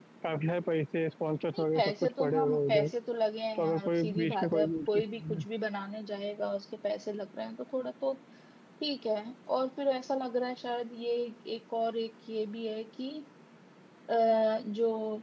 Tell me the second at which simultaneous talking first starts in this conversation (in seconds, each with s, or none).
1.5 s